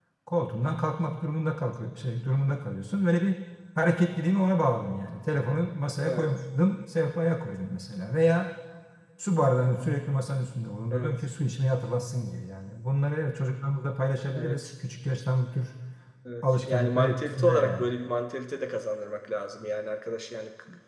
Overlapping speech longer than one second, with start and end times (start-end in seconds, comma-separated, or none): 16.4-17.9